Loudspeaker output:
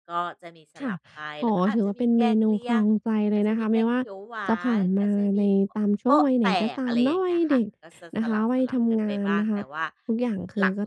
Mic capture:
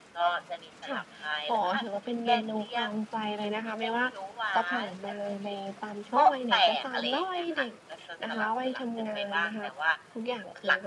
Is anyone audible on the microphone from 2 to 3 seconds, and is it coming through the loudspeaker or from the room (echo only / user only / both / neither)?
echo only